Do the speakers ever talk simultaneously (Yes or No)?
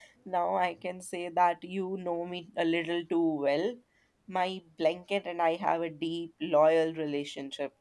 No